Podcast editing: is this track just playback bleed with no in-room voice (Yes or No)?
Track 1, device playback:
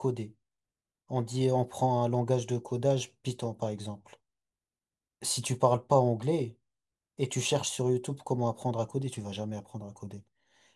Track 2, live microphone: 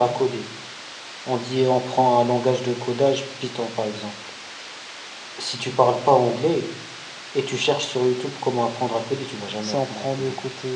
No